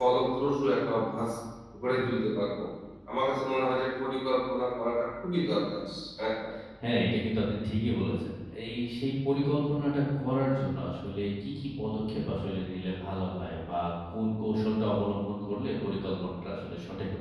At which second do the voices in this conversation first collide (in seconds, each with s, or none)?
none